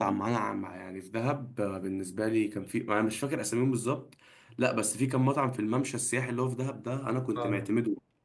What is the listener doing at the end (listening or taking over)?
listening